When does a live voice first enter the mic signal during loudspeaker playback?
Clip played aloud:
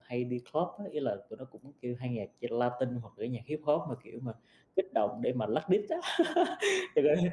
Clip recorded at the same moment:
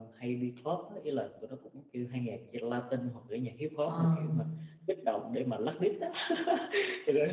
3.8 s

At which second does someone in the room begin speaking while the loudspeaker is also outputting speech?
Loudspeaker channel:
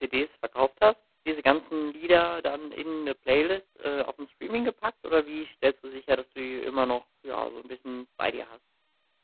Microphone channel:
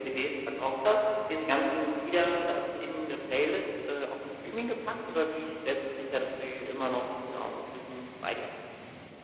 none

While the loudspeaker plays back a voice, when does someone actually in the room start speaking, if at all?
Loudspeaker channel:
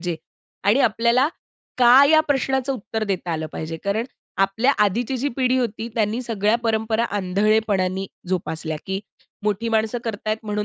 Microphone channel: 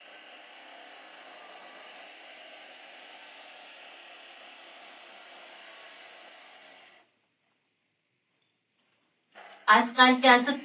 9.7 s

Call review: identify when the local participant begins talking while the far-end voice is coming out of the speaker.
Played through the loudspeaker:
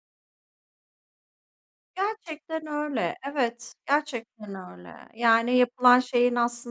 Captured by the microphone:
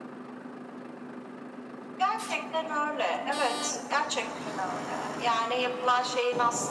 none

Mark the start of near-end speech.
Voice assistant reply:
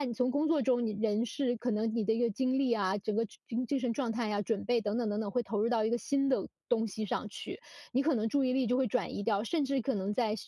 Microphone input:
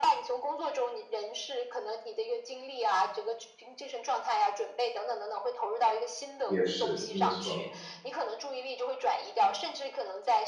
6.4 s

